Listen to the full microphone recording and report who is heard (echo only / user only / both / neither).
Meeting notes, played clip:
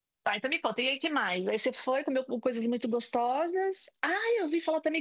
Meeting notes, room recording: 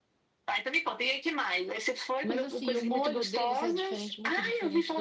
both